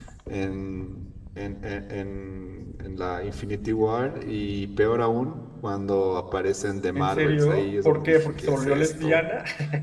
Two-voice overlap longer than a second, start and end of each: 7.0-9.2

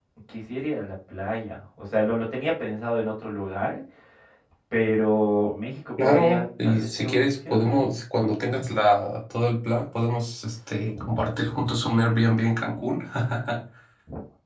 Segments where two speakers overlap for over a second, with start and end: 6.0-7.9

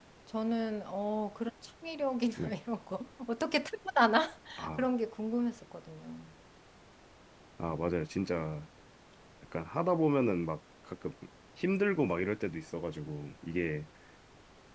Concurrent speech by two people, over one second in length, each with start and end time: none

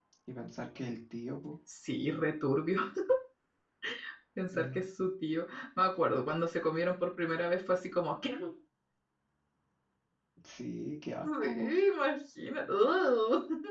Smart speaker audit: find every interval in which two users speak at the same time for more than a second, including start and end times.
none

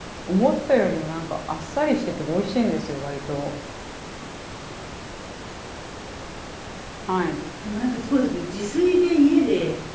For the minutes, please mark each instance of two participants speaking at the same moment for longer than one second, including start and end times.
none

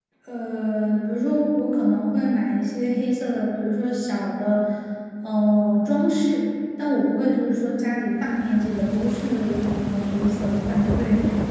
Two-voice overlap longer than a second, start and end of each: none

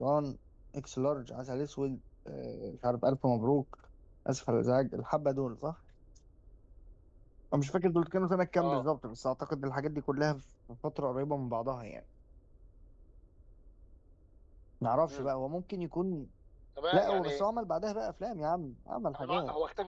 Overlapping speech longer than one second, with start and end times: none

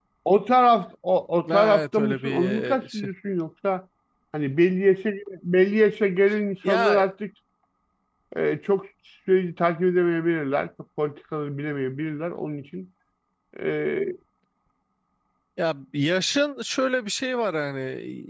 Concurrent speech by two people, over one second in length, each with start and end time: 1.5-3.1

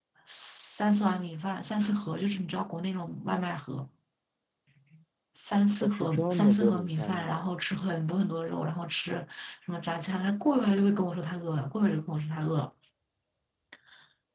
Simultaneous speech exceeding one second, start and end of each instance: 5.8-7.5

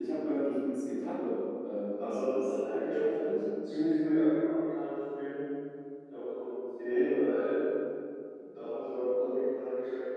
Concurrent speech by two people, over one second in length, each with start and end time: 2.0-3.4

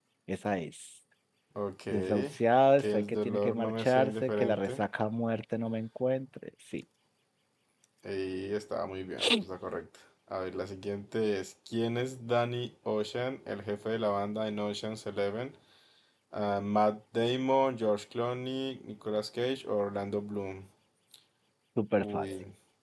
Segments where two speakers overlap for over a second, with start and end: 2.8-4.8

